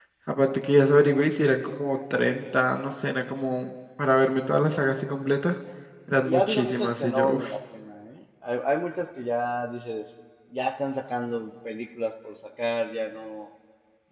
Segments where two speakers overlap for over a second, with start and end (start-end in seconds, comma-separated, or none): 6.2-7.5